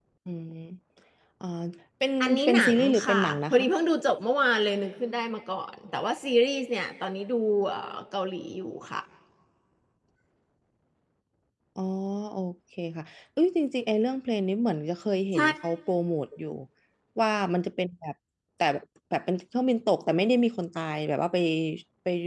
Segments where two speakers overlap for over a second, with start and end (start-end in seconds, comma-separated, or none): 2.2-3.6